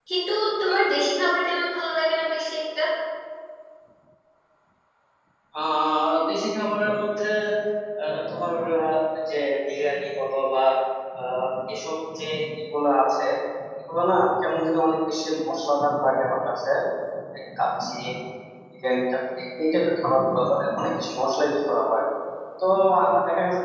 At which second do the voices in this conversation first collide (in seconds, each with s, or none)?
none